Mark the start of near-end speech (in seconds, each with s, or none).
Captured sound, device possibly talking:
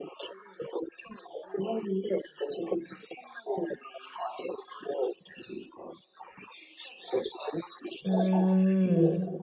8.1 s